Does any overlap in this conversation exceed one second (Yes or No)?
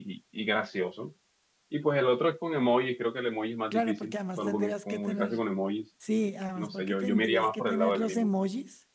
Yes